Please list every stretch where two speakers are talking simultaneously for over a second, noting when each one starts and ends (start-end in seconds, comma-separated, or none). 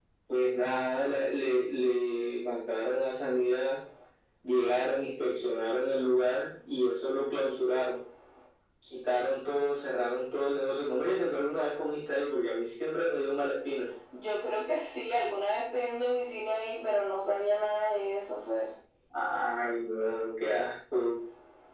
none